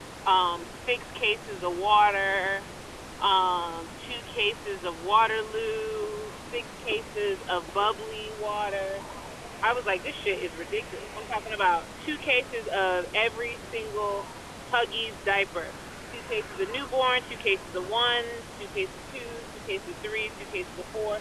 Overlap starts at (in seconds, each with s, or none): none